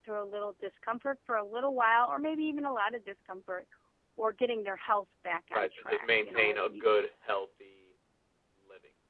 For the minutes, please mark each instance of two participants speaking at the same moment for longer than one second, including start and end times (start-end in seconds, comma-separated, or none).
5.5-7.0